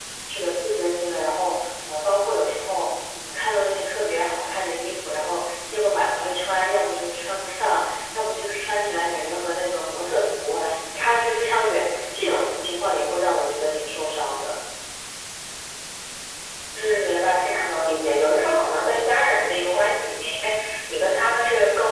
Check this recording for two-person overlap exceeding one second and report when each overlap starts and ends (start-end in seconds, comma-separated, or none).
none